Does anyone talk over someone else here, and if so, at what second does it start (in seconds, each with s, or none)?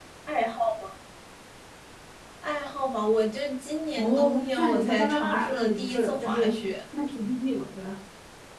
4.0 s